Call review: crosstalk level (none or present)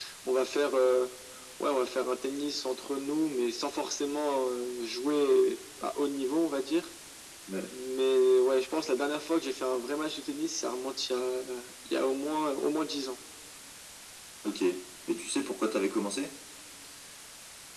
none